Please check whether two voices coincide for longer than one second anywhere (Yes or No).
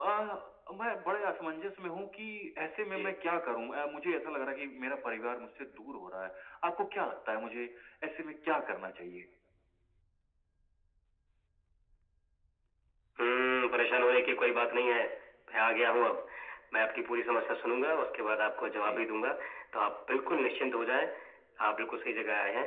No